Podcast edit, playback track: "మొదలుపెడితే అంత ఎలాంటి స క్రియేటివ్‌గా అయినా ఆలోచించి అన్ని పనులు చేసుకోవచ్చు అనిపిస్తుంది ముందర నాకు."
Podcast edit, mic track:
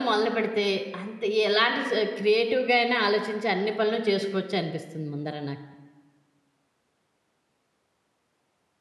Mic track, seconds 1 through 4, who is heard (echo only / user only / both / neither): echo only